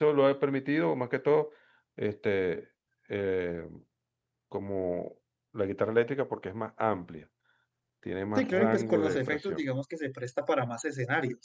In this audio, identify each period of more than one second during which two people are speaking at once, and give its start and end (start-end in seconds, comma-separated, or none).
8.3-9.6